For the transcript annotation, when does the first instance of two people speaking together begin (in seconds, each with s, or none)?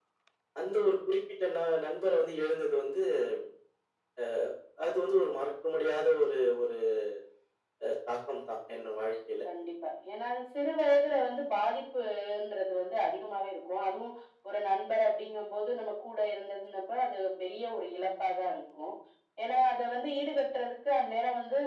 none